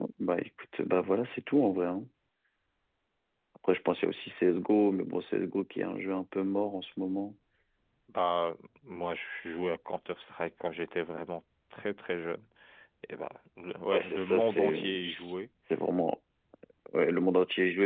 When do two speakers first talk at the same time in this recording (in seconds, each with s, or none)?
13.9 s